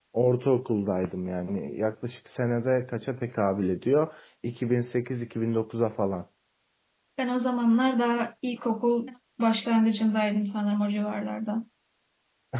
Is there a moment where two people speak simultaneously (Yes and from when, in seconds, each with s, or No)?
No